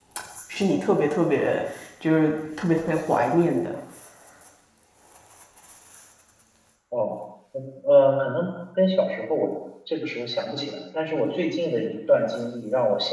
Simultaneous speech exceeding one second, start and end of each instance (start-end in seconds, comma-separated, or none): none